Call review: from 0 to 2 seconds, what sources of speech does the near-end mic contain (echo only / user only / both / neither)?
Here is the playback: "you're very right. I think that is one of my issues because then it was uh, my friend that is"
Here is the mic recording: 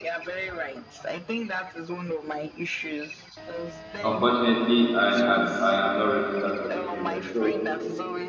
echo only